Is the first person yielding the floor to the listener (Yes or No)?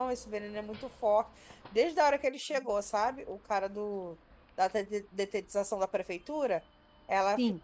No